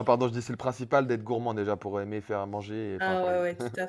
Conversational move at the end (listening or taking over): taking over